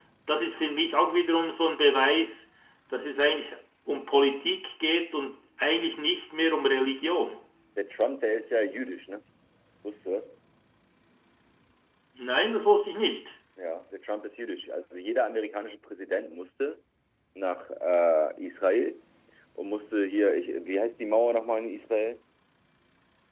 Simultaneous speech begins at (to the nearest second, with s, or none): none